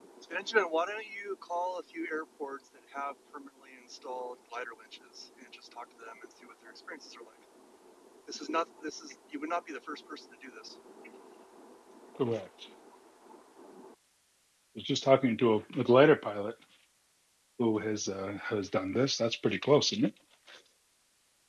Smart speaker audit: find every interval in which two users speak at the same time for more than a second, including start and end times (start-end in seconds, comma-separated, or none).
none